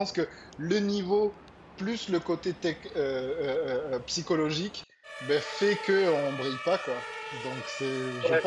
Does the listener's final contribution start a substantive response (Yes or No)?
Yes